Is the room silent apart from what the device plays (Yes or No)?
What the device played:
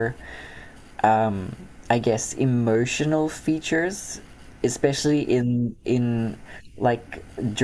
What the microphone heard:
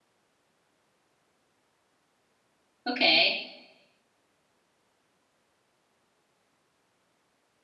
No